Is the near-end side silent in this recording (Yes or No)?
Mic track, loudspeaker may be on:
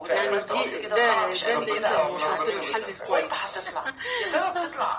No